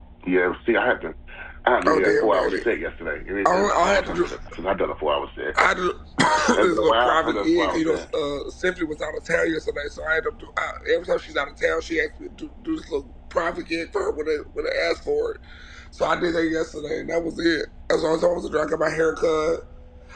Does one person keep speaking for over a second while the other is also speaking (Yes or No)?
Yes